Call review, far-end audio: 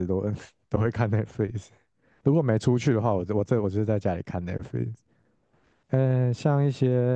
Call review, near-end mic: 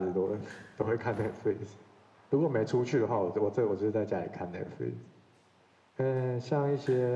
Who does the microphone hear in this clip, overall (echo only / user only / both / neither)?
echo only